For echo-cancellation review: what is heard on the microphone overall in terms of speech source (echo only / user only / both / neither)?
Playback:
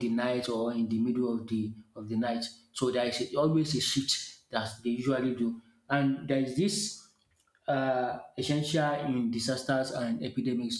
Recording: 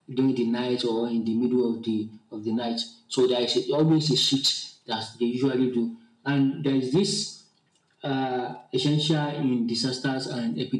echo only